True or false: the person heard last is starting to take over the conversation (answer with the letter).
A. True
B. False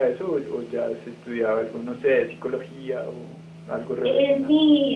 A